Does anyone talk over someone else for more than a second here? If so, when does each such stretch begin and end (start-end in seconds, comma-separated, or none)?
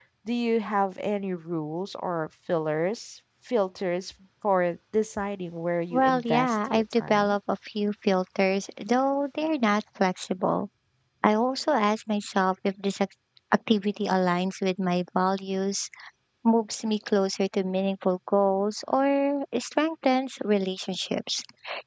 5.9-7.3